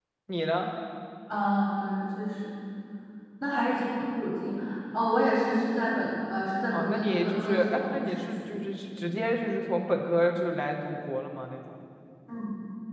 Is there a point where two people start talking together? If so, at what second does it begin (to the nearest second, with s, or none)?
7 s